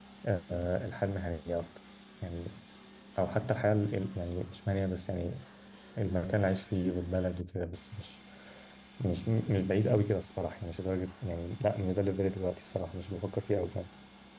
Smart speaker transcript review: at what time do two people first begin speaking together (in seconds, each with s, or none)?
none